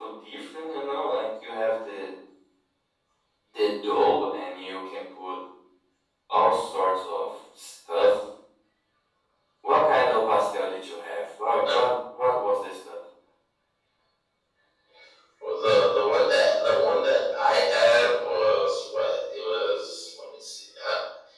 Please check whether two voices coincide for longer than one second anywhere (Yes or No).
No